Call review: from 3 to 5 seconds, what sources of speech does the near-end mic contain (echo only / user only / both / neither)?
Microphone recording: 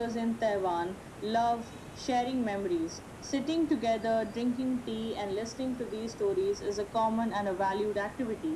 echo only